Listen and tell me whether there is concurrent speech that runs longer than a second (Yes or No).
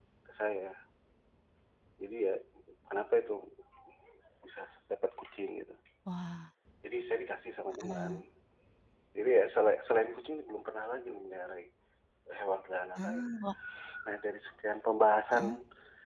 No